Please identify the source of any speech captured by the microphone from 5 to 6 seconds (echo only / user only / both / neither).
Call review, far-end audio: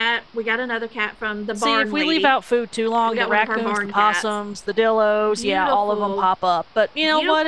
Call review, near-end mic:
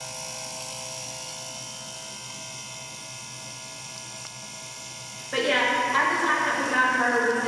user only